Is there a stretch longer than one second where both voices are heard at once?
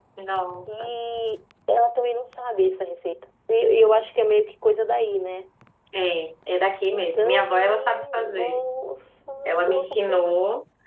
Yes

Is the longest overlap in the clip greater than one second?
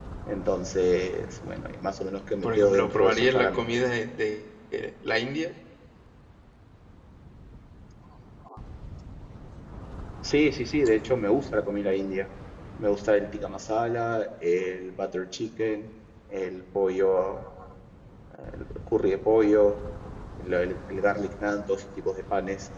Yes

